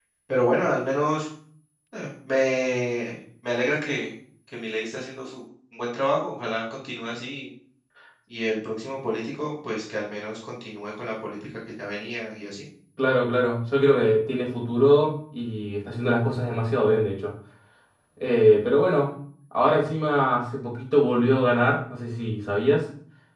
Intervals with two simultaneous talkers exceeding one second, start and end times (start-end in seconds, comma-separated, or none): none